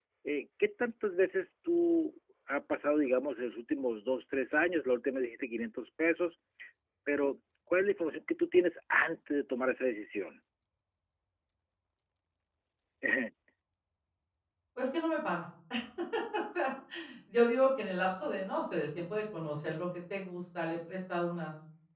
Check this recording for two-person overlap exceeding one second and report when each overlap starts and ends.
none

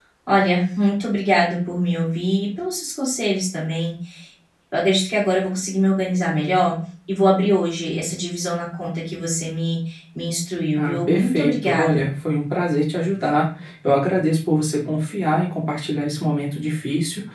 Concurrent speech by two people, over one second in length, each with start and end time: 10.8-12.0

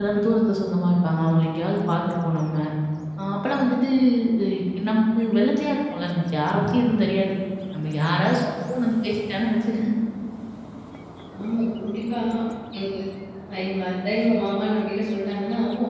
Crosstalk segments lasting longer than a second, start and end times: none

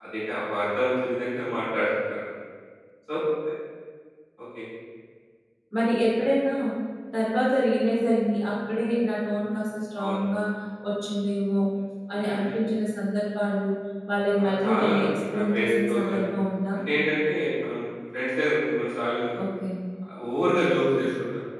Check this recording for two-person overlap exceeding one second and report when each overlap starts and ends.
14.4-16.3

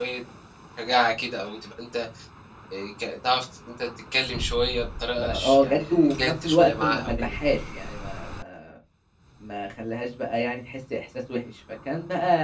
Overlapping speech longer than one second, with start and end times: 5.2-7.4

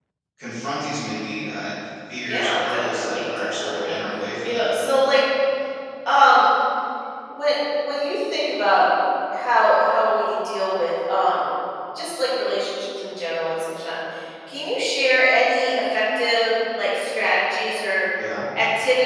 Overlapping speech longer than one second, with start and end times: 2.3-4.0

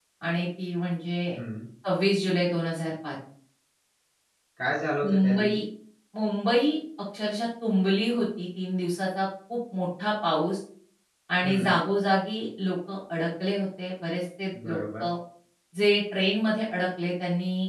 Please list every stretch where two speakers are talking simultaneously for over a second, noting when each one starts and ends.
none

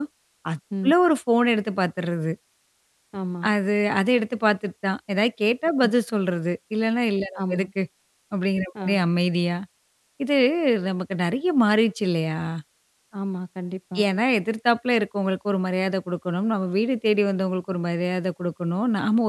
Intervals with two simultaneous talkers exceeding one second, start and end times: none

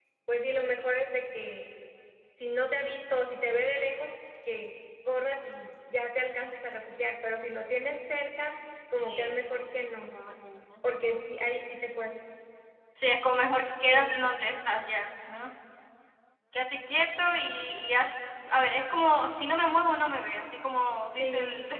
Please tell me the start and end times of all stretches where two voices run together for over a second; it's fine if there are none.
none

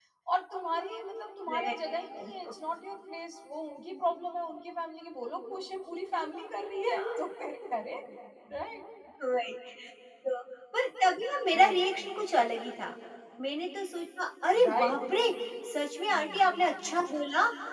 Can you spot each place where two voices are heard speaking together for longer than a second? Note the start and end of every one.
none

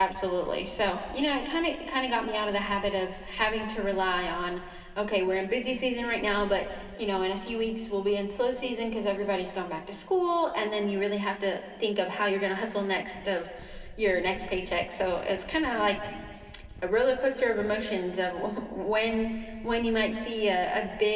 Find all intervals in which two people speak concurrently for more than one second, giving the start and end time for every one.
none

